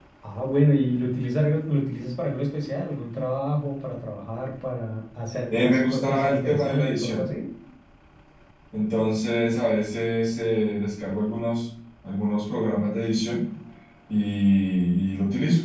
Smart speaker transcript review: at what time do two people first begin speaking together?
5.5 s

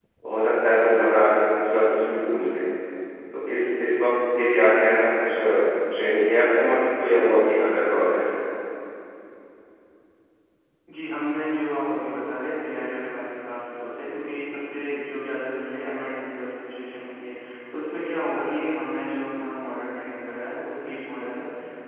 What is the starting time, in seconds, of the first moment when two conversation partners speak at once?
none

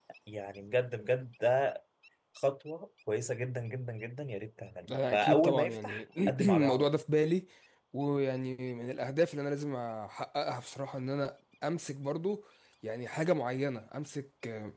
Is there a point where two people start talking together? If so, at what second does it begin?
5.1 s

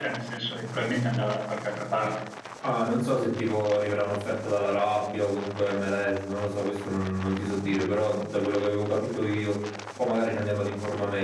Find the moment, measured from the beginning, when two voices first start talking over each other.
none

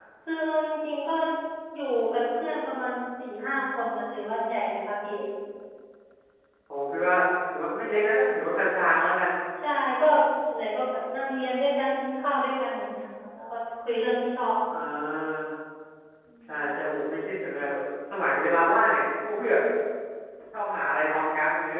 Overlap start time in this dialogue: none

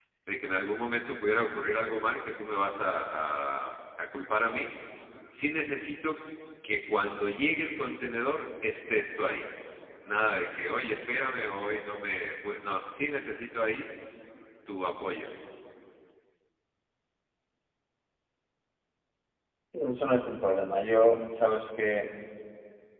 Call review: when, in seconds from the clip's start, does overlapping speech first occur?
none

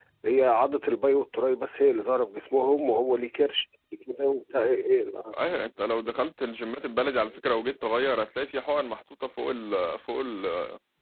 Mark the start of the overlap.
none

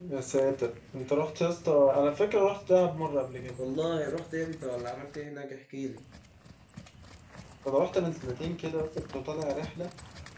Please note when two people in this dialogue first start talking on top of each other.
none

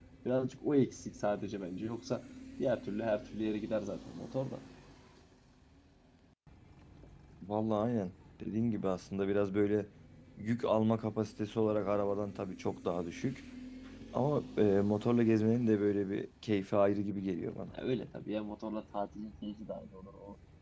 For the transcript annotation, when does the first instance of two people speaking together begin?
none

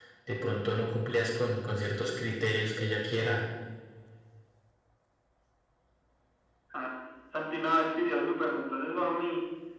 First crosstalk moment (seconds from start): none

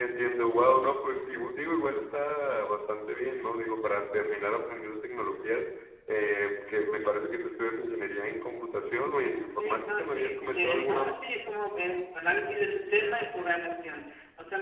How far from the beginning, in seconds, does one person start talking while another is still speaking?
9.6 s

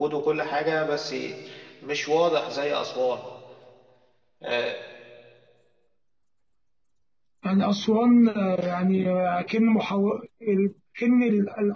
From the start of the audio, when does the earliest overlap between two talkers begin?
none

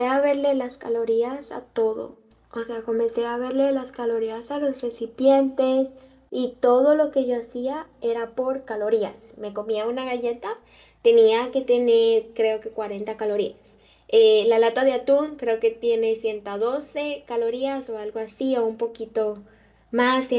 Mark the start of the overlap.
none

